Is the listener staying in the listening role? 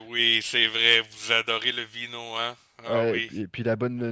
No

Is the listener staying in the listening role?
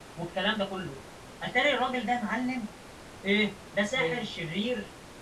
Yes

